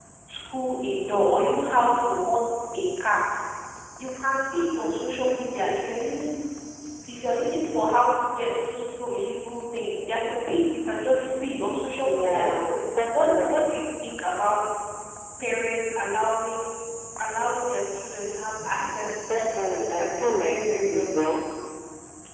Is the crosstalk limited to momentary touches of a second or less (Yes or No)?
No